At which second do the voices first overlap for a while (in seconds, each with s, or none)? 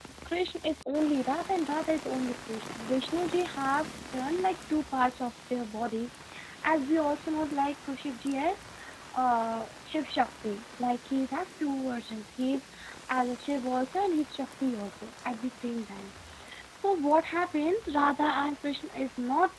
none